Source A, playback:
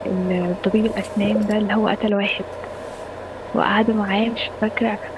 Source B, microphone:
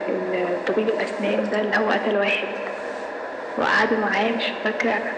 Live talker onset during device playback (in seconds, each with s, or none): none